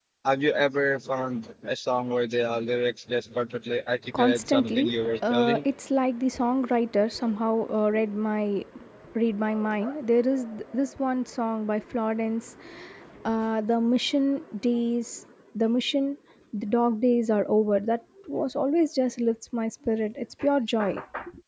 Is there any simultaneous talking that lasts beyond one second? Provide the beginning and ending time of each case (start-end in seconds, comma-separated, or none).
4.2-5.6